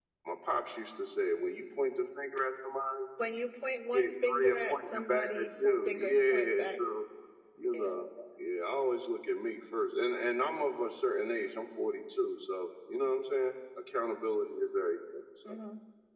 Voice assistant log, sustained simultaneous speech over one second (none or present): present